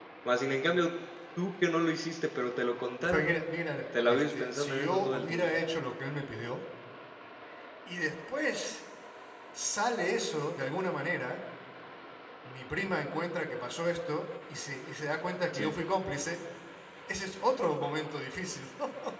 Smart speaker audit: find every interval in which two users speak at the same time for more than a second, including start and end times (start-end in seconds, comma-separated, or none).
4.1-5.4